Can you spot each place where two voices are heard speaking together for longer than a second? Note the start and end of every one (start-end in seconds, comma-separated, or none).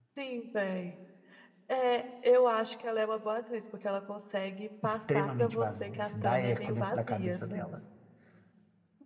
4.8-7.7